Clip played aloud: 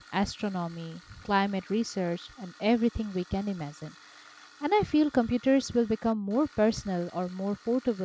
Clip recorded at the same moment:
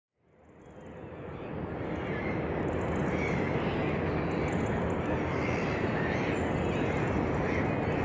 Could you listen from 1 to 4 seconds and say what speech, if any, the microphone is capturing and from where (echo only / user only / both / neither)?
neither